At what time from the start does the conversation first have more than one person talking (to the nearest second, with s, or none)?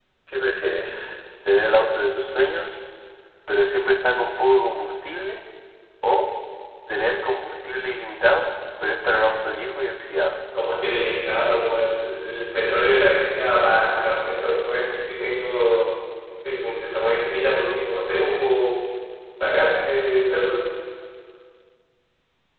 none